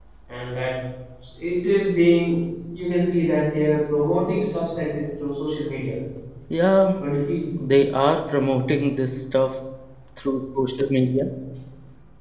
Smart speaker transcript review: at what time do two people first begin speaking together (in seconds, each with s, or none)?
none